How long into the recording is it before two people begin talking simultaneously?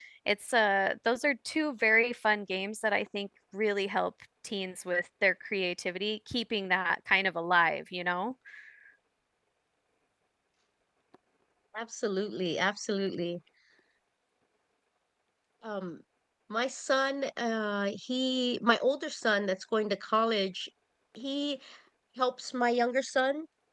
none

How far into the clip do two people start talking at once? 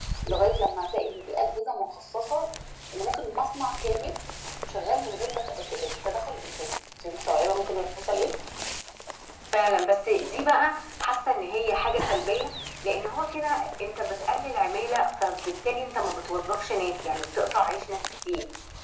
none

